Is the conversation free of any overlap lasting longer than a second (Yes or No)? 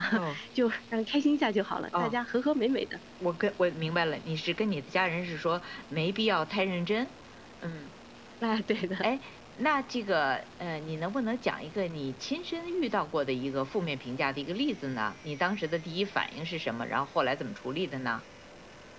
Yes